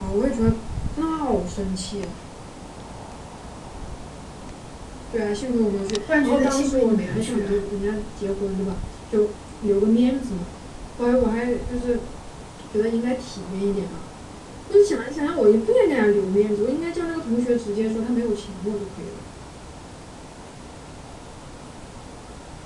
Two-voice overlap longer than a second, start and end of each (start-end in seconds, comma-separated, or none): 6.1-7.6